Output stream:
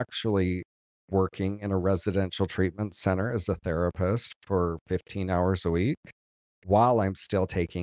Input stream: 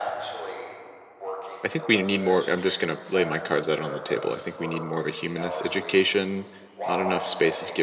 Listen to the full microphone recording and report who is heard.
both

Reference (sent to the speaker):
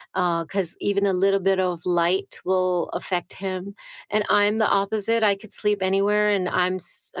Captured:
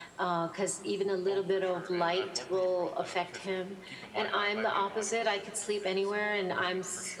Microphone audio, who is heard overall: both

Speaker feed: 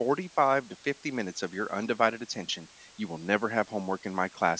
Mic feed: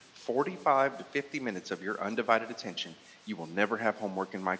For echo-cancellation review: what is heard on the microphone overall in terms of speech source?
echo only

